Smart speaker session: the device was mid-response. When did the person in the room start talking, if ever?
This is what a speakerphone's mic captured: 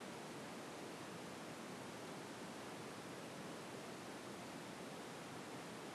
none

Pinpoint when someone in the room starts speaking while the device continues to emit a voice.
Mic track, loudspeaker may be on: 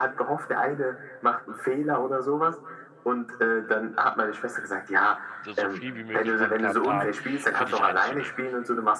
5.5 s

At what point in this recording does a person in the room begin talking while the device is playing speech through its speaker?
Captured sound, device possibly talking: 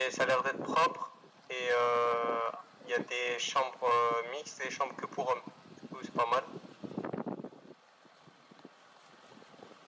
none

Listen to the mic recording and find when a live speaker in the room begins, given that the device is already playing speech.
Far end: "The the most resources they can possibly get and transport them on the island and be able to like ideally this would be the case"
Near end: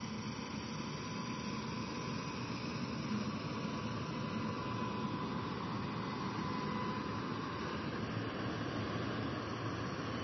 none

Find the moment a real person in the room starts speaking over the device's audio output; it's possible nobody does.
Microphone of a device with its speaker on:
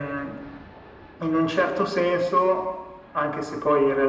none

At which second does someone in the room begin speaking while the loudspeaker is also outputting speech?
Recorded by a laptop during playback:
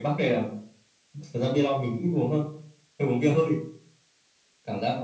none

